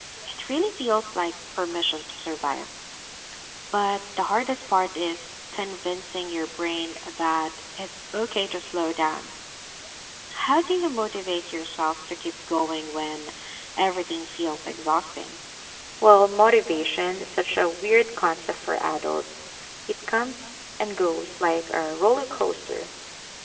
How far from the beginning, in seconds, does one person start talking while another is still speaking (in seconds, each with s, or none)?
none